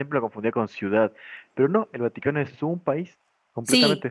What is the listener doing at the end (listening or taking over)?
taking over